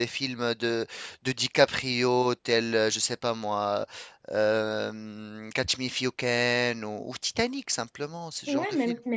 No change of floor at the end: No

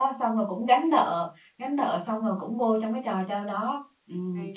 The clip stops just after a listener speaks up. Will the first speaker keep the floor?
Yes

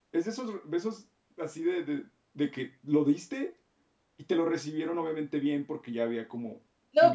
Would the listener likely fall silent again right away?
No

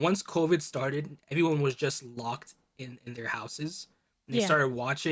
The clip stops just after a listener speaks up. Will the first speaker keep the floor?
Yes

